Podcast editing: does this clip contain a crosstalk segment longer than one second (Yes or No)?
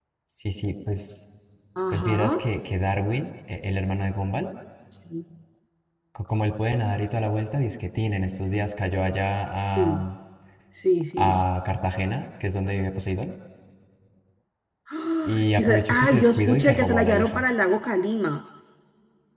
Yes